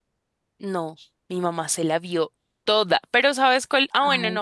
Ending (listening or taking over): listening